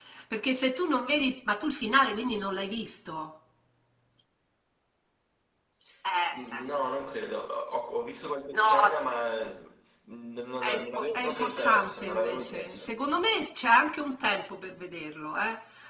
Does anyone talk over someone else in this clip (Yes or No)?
Yes